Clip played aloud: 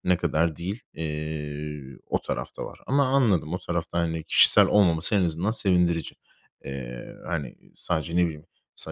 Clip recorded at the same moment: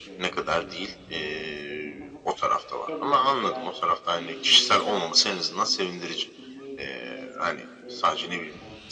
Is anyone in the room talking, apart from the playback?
Yes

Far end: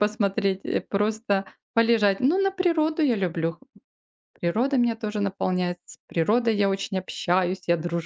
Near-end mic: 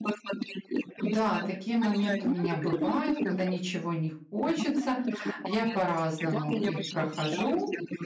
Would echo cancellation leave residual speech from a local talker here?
Yes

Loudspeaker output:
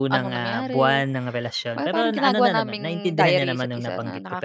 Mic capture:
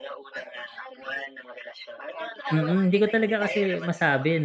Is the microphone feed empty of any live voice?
No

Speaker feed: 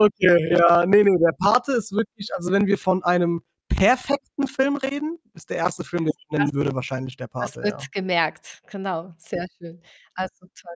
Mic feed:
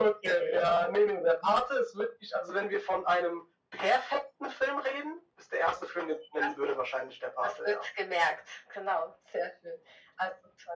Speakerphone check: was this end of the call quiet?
Yes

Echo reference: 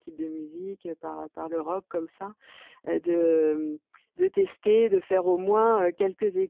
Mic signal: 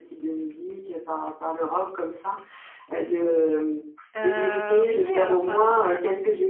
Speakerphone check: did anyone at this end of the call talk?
Yes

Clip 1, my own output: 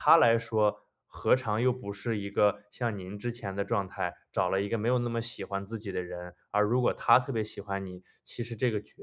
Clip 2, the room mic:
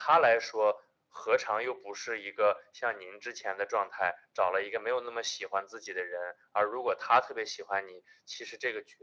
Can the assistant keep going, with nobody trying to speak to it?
Yes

